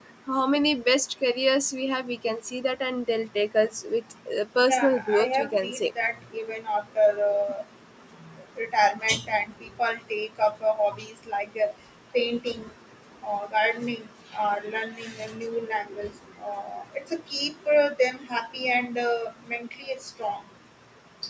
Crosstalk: present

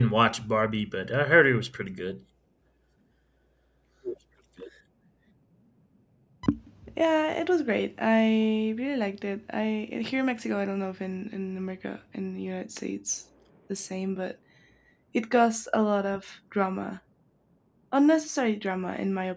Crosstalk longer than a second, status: none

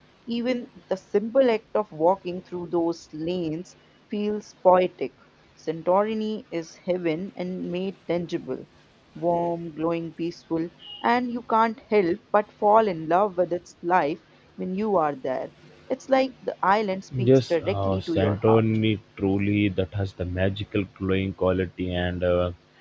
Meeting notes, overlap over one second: present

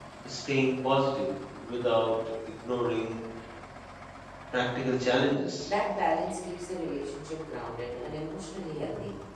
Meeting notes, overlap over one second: none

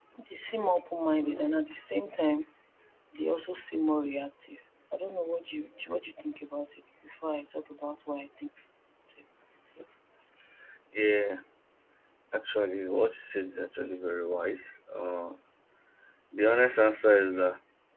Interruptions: none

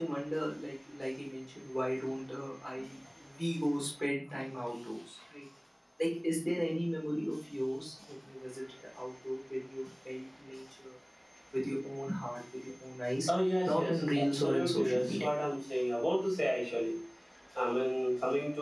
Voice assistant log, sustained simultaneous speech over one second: present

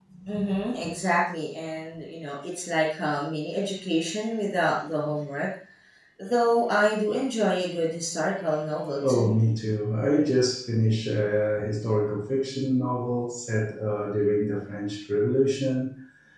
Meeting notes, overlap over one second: none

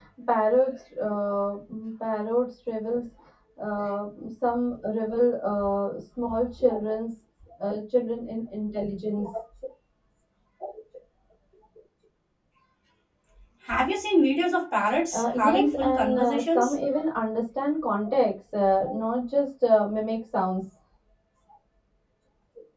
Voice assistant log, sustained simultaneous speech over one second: present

